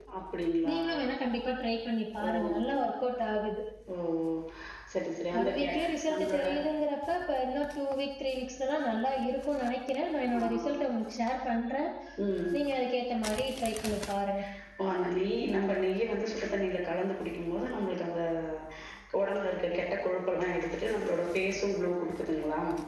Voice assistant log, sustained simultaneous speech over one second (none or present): none